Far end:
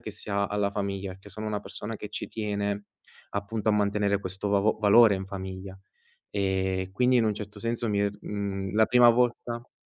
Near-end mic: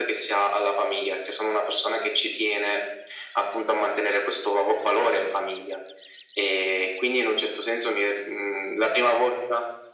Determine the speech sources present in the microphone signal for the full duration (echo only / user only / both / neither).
echo only